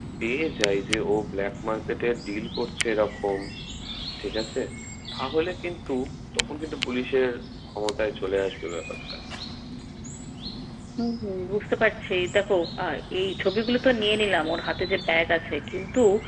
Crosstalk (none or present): none